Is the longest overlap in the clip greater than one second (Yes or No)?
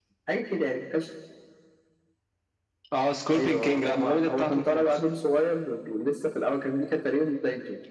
Yes